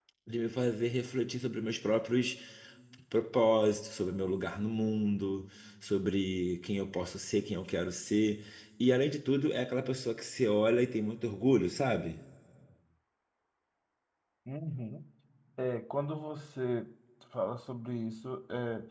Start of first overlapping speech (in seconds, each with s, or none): none